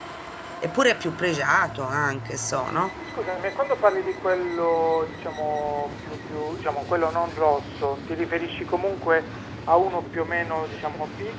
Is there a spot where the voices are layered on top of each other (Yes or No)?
No